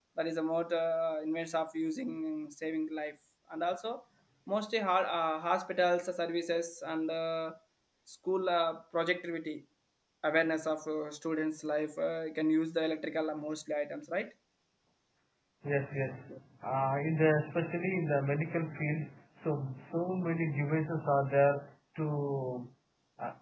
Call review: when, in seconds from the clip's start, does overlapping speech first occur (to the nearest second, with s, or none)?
none